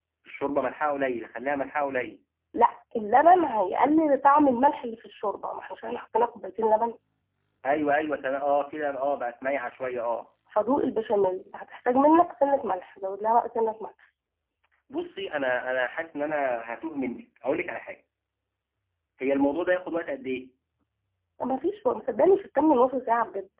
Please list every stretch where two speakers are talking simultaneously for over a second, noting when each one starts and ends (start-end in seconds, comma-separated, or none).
none